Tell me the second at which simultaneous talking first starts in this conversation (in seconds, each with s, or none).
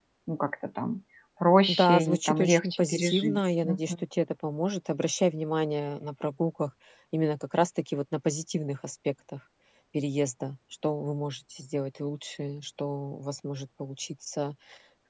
1.7 s